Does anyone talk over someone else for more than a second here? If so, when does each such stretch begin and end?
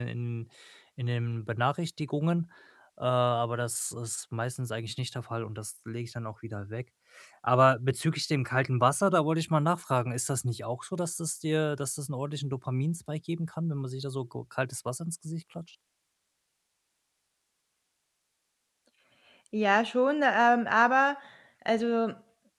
none

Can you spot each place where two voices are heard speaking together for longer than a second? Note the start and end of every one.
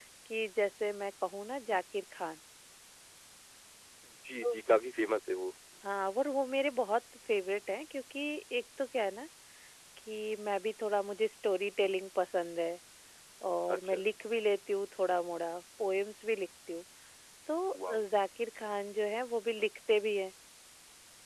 none

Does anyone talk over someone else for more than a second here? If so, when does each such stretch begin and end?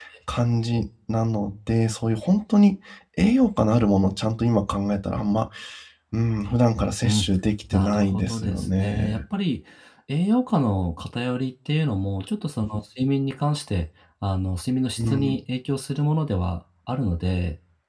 7.7-9.1

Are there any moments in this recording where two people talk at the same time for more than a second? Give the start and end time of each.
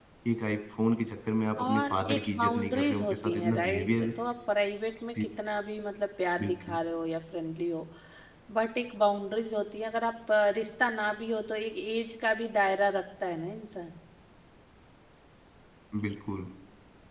1.6-4.1

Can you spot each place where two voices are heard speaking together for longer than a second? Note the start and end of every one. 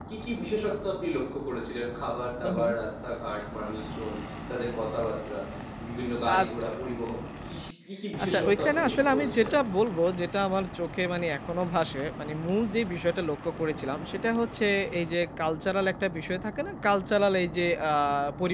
8.2-9.5

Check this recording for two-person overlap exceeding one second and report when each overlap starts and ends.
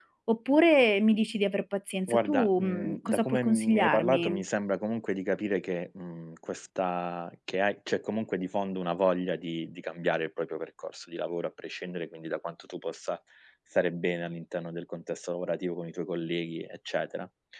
2.1-4.4

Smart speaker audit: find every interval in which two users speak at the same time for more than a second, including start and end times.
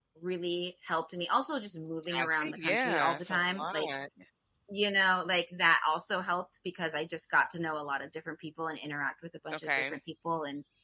2.1-3.9

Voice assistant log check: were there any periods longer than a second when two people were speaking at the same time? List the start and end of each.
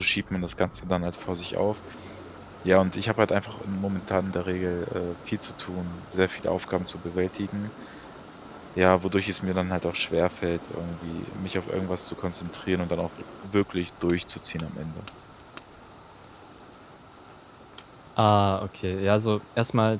none

